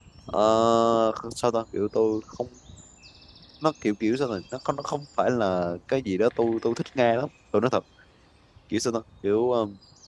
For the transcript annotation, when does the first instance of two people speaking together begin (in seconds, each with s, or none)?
none